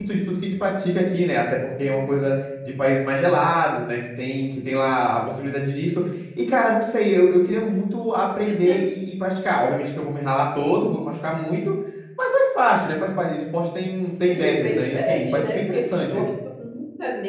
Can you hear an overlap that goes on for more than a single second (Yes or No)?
Yes